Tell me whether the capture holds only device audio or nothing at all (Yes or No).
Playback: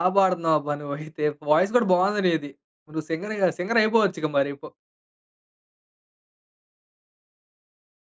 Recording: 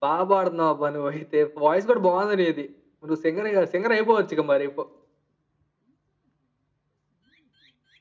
Yes